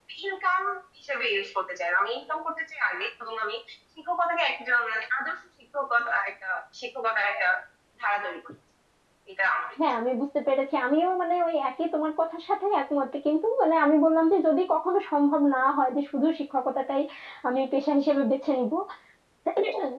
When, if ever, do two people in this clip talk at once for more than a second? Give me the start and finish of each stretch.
none

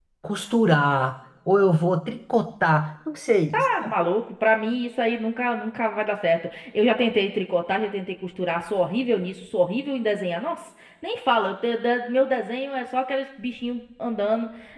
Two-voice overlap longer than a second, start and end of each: none

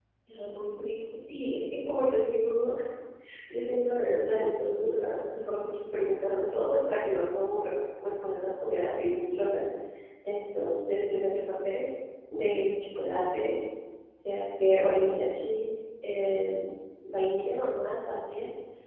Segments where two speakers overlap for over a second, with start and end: none

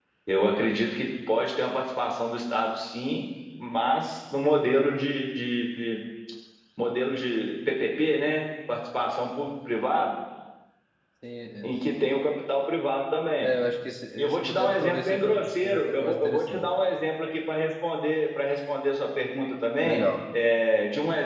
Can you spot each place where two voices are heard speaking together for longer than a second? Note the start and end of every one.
14.2-16.7

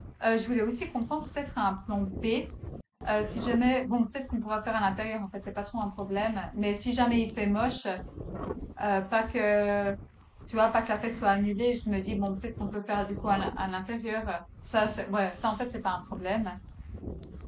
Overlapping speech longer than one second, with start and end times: none

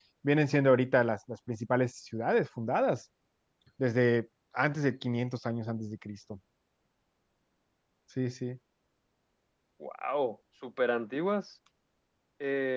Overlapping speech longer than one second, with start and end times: none

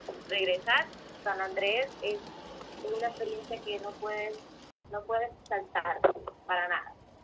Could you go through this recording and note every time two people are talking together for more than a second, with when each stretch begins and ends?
none

